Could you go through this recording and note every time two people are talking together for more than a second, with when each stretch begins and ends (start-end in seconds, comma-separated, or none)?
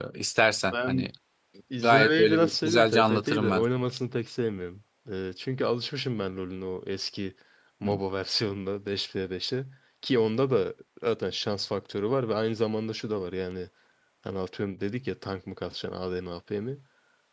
1.8-3.6